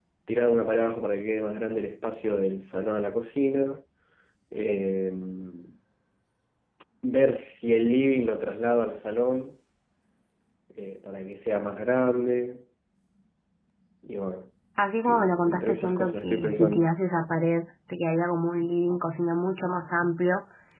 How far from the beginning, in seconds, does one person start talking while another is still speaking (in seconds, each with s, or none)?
15.1 s